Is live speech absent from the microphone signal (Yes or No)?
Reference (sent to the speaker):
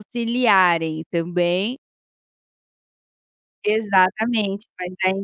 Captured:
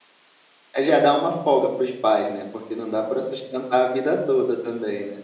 No